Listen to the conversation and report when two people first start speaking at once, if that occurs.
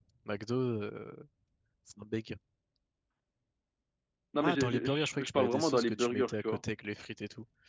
4.4 s

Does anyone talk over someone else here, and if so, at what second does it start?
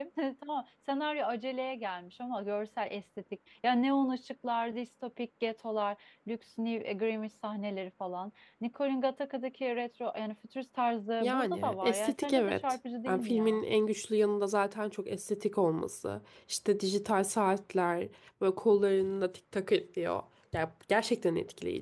11.2 s

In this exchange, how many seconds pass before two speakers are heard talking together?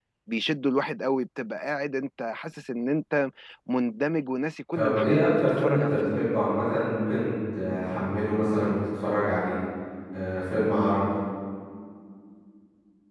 4.7 s

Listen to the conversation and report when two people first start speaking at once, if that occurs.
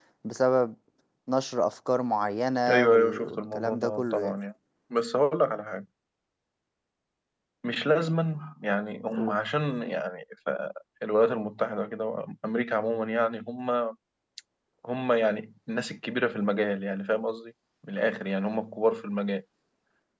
2.7 s

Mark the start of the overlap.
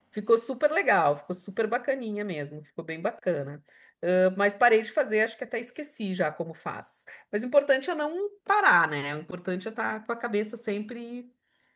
none

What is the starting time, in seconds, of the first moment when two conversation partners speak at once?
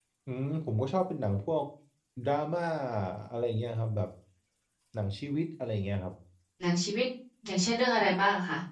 none

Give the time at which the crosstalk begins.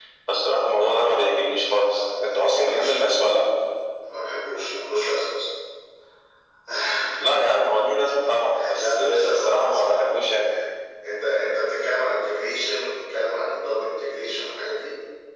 1.7 s

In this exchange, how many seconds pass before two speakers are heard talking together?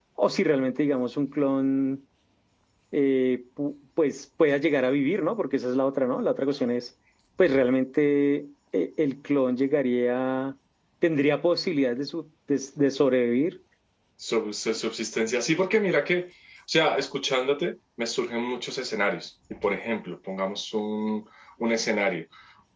none

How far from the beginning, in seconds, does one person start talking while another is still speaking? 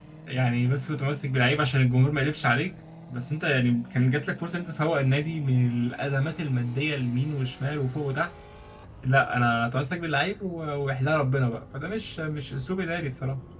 none

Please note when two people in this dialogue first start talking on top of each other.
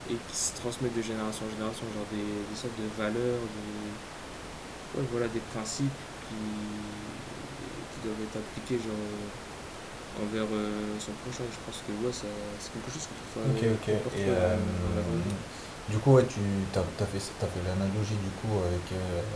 13.4 s

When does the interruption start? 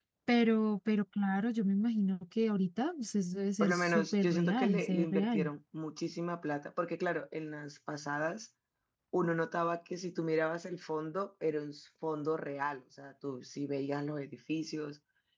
3.6 s

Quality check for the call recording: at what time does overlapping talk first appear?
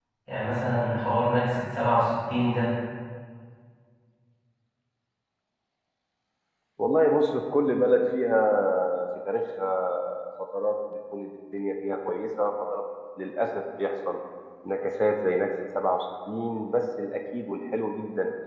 none

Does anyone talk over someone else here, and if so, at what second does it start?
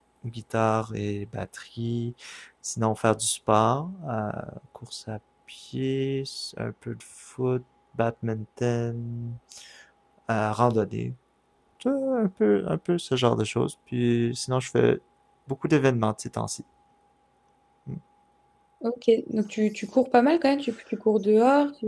none

